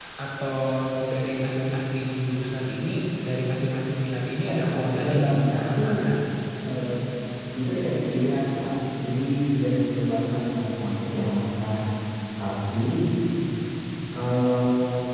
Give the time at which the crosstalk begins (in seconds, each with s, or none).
4.4 s